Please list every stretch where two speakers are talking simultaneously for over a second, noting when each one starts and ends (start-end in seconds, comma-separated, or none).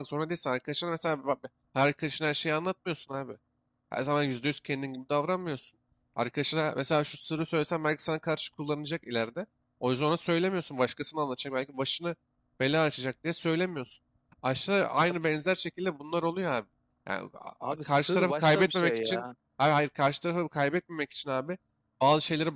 17.6-19.2